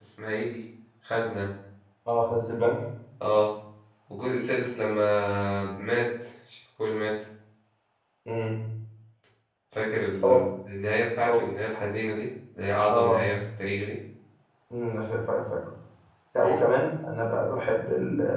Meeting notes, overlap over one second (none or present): none